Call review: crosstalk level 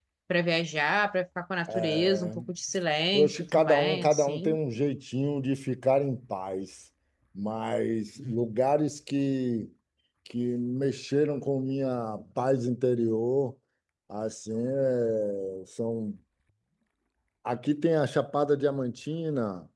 present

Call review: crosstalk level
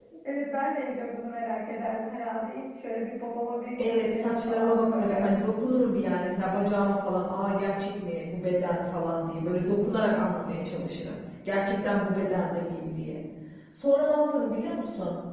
present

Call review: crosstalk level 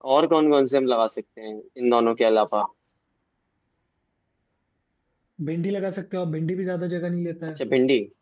none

